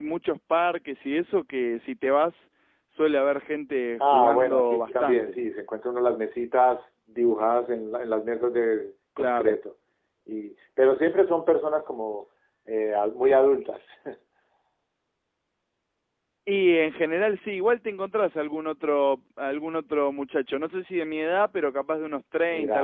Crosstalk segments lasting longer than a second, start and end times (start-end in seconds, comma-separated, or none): 4.0-5.4